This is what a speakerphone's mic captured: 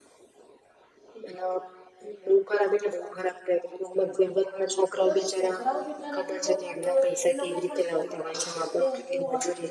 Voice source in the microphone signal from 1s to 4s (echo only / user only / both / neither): echo only